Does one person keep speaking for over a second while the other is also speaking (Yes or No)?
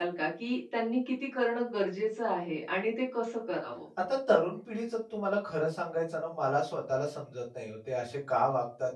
No